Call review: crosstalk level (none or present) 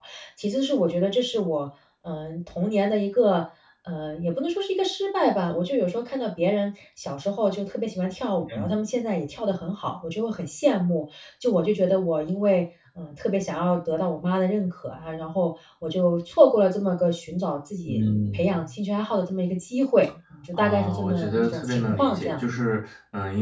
present